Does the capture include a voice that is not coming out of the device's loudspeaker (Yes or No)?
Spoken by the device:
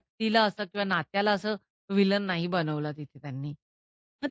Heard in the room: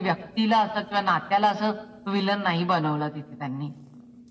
No